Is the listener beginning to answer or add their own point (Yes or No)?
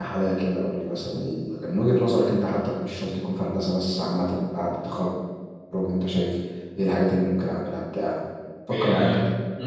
Yes